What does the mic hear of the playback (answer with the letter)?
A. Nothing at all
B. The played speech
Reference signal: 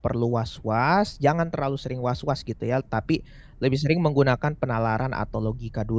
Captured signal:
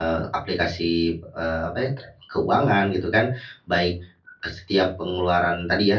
A